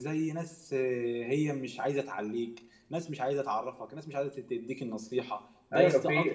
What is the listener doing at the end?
taking over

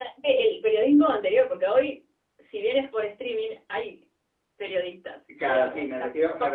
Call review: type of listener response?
taking over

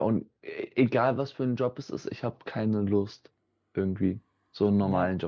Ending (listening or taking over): listening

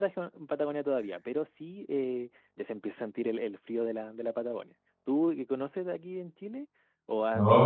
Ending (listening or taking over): taking over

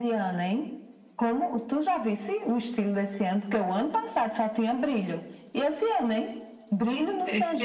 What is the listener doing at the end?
taking over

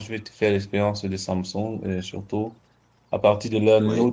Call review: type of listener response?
listening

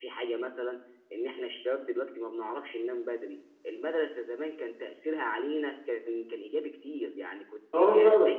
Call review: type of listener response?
listening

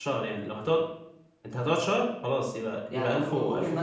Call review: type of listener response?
taking over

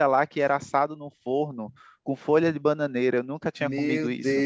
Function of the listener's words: taking over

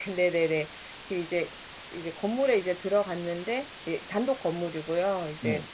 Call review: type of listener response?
listening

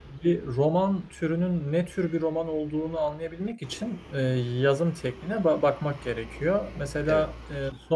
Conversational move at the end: listening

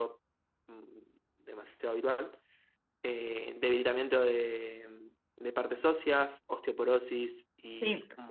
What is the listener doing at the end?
taking over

